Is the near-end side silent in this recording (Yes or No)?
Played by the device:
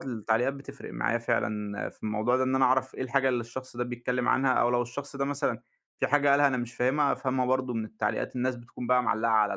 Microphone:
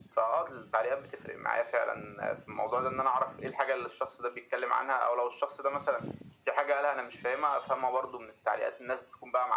Yes